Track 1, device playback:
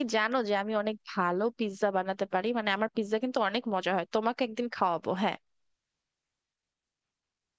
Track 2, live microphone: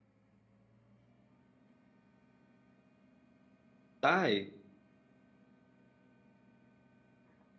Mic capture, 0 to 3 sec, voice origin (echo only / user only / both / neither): neither